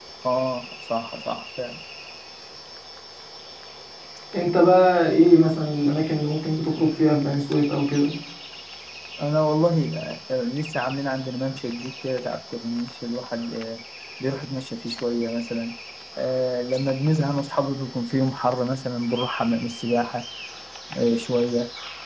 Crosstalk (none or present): none